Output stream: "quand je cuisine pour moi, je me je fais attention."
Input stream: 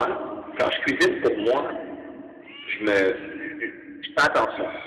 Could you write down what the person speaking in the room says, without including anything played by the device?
none

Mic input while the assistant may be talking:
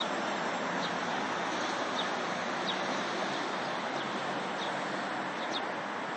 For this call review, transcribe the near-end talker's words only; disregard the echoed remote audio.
none

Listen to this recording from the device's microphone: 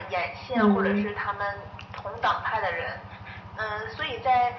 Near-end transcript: 嗯，

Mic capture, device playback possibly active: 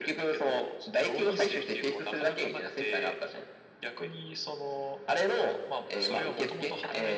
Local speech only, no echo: none

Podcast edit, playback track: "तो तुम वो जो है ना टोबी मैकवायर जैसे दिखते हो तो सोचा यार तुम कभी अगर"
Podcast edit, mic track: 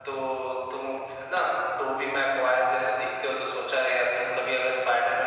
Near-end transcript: none

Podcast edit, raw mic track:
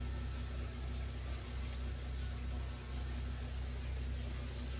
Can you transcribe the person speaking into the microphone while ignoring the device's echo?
none

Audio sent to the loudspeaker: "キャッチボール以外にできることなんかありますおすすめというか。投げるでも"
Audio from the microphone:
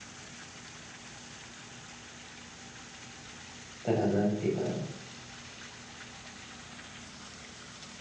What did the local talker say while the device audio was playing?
たら、なんていうかな。

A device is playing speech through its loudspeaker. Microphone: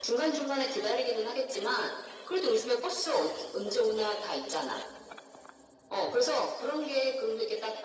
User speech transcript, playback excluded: none

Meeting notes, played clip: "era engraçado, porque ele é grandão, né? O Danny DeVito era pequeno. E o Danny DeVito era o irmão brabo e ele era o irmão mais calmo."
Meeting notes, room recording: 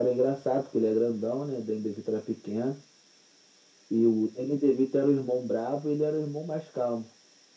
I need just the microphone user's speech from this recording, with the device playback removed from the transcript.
none

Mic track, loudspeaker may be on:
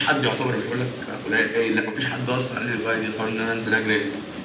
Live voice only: none

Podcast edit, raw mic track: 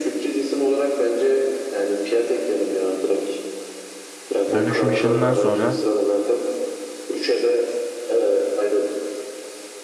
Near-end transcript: dönüşüm işinden sonra

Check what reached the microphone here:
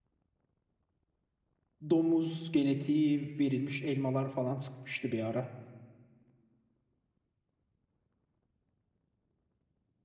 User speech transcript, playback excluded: Domuz genetiği verilmiş elmalar falan çıkmıştı bir ara.

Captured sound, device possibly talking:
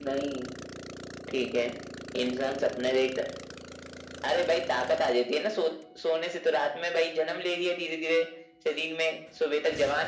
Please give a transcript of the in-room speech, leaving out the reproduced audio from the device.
none

